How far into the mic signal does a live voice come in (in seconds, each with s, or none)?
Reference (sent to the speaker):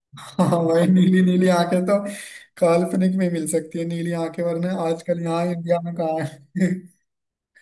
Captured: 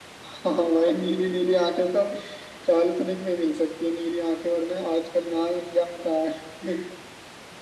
none